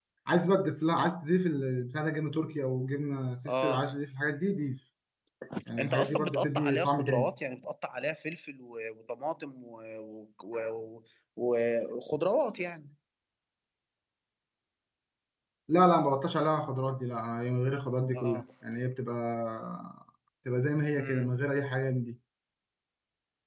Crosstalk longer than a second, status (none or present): present